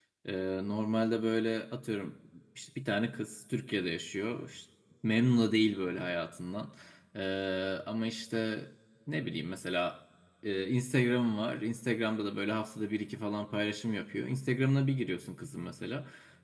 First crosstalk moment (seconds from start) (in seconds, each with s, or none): none